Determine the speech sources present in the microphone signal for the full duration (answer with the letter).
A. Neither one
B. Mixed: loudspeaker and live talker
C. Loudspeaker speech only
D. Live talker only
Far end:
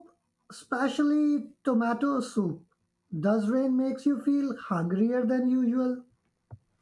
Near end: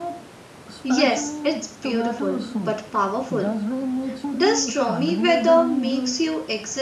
B